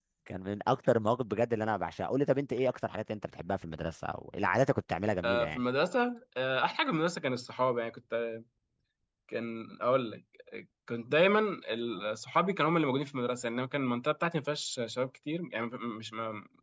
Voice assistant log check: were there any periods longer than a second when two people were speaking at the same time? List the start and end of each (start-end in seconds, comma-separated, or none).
none